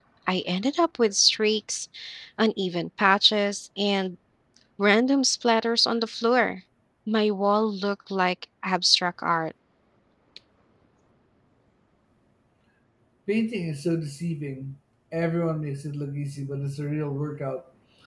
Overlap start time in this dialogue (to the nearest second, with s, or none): none